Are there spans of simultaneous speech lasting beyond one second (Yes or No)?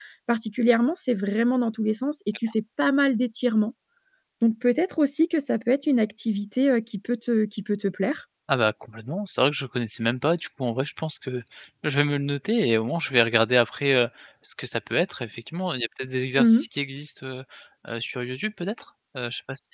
No